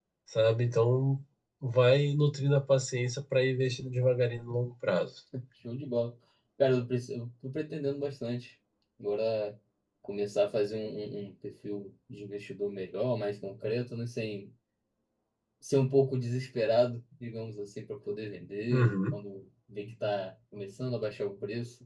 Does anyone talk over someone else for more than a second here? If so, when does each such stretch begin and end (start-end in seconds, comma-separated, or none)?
none